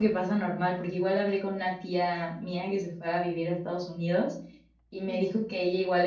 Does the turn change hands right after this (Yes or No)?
No